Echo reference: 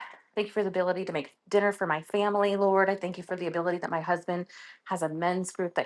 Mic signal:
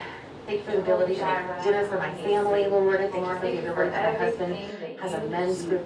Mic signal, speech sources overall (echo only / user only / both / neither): both